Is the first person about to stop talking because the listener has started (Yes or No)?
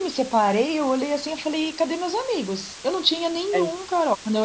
No